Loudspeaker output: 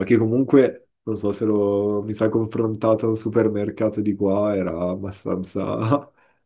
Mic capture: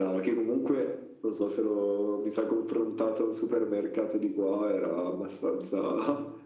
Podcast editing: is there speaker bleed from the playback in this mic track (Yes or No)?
Yes